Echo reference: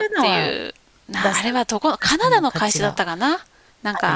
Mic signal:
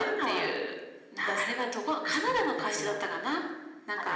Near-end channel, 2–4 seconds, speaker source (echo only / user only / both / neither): echo only